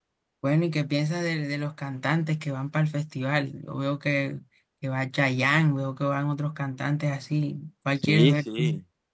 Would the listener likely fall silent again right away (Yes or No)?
No